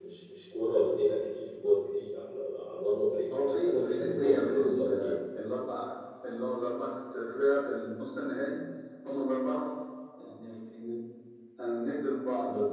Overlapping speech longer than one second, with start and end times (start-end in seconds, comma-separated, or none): 3.3-5.2